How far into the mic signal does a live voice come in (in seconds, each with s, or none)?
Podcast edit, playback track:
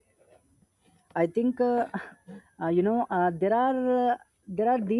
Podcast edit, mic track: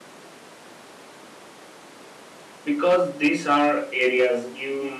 2.6 s